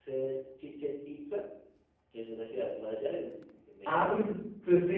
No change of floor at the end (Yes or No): No